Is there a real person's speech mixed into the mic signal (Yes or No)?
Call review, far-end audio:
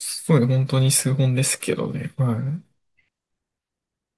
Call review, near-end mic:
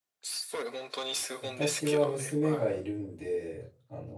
Yes